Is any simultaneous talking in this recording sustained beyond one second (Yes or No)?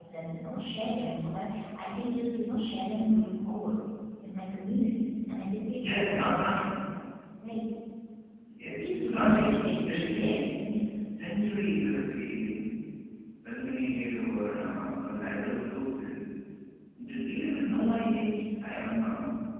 Yes